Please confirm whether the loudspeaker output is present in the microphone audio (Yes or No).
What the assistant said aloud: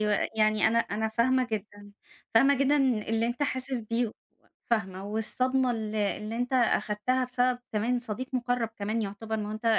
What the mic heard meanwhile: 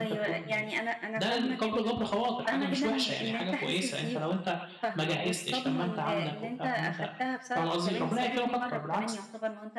Yes